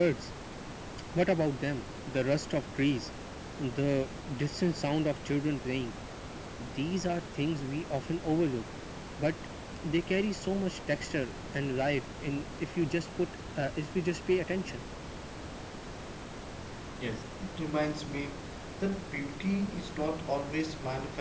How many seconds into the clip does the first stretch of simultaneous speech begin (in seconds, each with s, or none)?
none